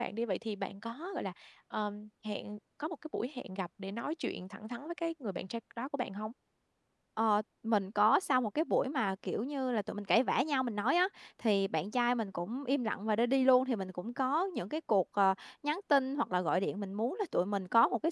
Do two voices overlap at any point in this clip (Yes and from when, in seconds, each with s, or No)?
No